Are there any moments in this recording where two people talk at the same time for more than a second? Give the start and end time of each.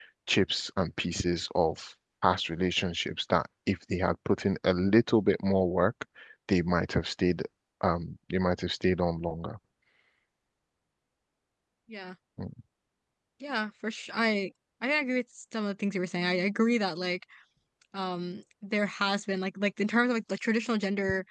none

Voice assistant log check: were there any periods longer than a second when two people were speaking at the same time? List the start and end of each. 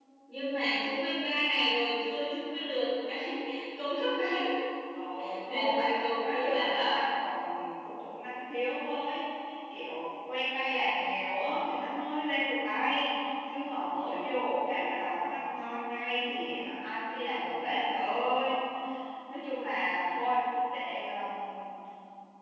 5.4-7.0

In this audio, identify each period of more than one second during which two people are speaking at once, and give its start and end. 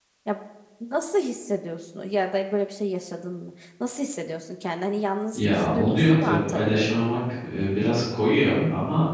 5.3-6.9

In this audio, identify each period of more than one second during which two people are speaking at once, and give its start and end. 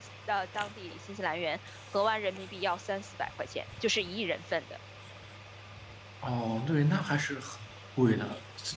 none

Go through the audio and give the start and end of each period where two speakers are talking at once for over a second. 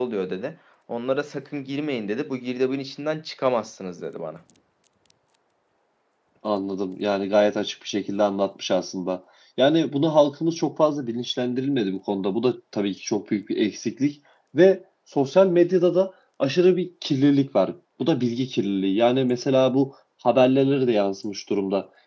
none

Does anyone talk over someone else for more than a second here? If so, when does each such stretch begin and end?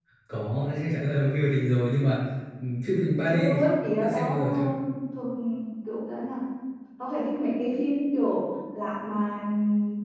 3.3-4.7

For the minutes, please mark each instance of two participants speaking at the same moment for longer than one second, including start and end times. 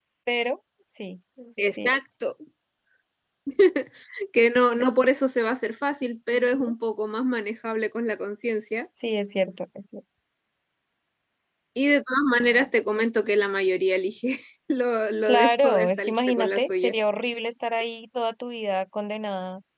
15.3-16.9

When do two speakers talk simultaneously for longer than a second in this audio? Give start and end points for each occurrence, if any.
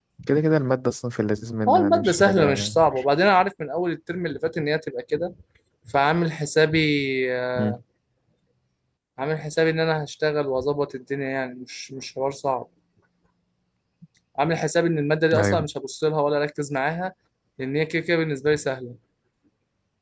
1.7-3.0

